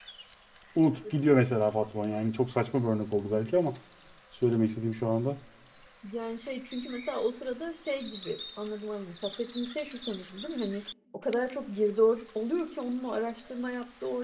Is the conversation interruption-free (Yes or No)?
Yes